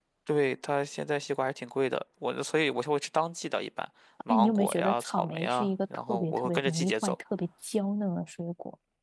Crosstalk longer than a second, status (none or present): present